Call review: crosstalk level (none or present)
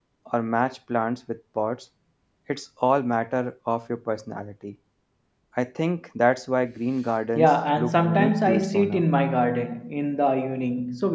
present